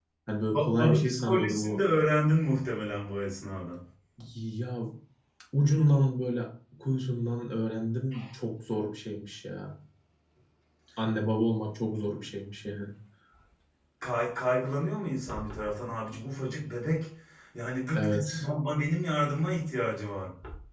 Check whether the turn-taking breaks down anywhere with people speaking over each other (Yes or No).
Yes